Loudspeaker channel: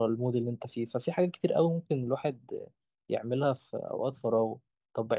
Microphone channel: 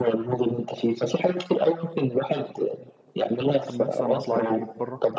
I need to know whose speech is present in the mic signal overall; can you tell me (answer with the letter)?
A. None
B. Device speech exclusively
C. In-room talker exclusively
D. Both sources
D